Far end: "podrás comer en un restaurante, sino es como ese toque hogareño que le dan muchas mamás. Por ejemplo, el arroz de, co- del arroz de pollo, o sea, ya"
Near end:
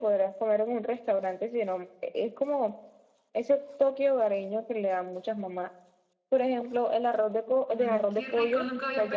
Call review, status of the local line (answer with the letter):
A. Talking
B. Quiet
A